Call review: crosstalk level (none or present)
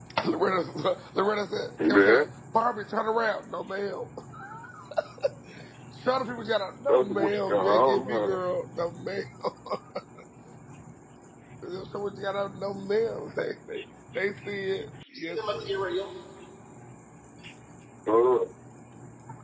present